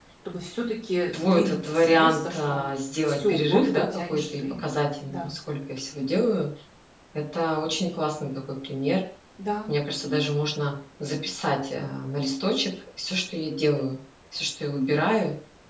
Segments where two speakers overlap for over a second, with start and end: 1.1-2.6, 3.0-4.6

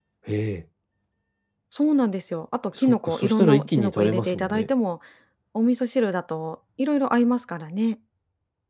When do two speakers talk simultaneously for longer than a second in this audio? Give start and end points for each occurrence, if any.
2.8-4.7

